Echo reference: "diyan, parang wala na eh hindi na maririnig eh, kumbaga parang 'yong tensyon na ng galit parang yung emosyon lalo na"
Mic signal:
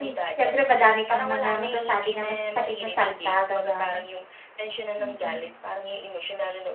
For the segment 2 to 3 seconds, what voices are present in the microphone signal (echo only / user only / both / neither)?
both